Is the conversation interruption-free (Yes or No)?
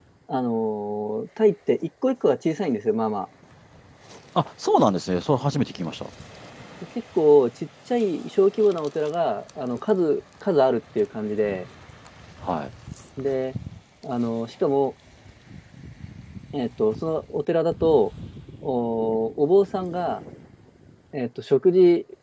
Yes